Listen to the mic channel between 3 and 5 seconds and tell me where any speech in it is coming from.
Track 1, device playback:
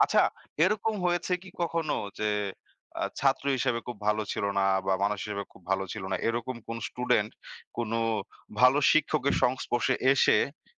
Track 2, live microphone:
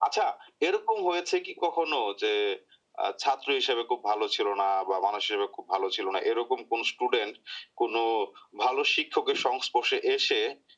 echo only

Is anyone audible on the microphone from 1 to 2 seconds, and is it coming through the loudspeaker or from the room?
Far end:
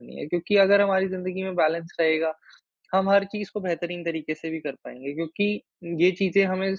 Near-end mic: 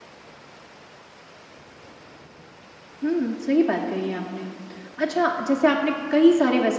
neither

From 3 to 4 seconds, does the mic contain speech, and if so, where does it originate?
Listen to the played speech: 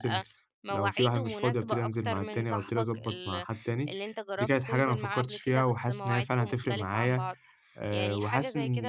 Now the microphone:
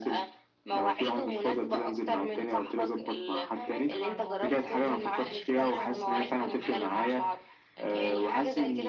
both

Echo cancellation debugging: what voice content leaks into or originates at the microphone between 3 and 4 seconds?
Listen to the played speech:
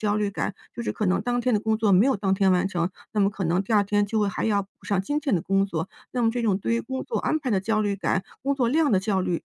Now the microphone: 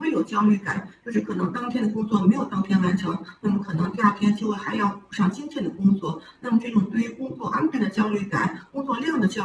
echo only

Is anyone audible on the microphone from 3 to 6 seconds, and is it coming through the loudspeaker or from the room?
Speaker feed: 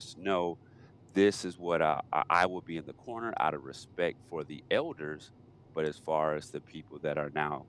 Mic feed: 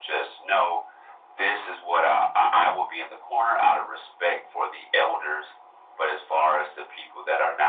echo only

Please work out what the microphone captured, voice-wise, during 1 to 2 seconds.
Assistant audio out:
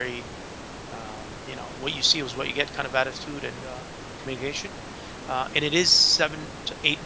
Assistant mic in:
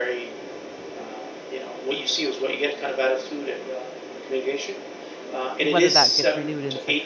echo only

